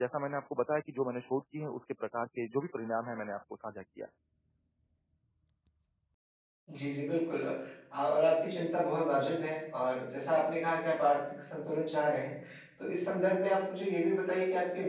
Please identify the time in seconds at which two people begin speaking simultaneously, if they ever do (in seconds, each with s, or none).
none